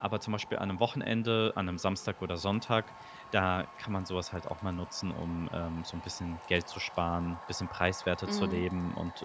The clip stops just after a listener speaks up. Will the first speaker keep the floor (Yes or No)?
Yes